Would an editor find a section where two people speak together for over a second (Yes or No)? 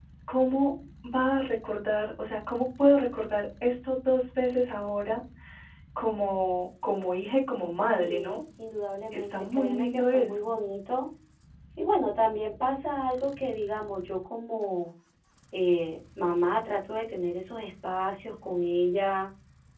Yes